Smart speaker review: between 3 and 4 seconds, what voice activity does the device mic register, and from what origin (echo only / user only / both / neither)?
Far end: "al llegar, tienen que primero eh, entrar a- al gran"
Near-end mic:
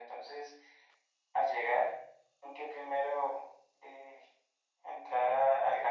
echo only